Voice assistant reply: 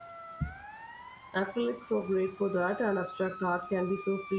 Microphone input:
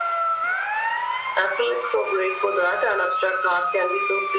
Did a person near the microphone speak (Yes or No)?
No